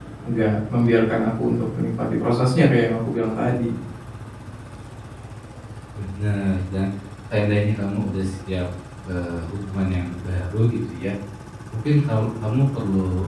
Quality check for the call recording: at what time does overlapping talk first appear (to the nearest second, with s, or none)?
none